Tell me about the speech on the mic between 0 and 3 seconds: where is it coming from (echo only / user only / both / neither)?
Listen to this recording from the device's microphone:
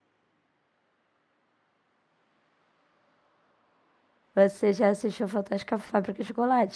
neither